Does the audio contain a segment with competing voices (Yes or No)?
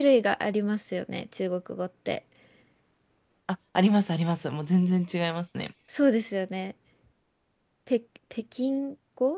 No